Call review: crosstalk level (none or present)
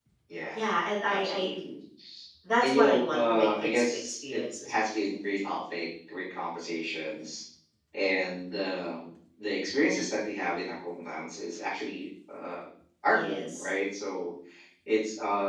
present